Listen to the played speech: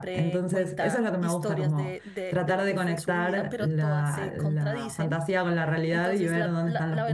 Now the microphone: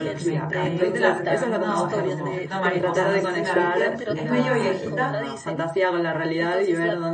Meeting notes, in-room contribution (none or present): present